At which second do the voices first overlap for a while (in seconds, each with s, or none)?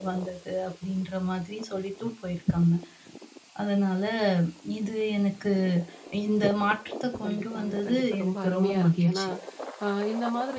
7.2 s